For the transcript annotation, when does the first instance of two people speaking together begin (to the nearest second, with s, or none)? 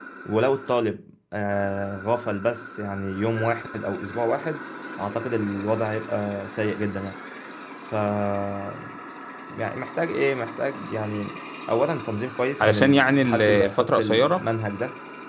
13 s